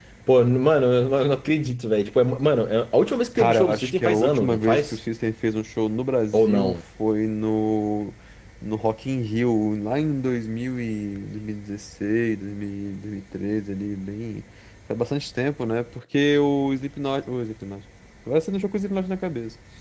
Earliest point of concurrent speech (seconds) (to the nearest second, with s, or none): 3 s